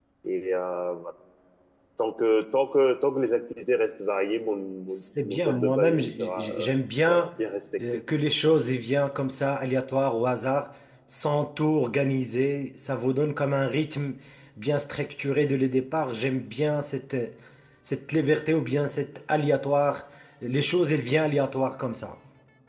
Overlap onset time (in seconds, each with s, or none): 4.9 s